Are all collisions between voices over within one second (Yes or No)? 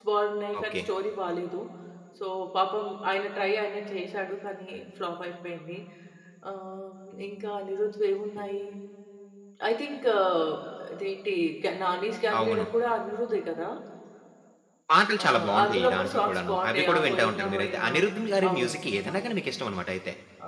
No